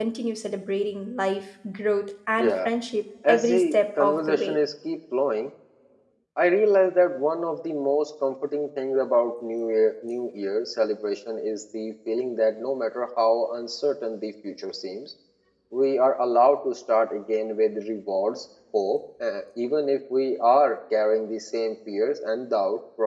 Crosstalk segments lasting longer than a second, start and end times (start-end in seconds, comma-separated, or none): 3.3-4.6